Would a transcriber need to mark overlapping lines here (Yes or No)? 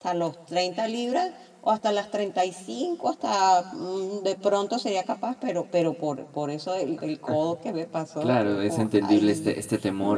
Yes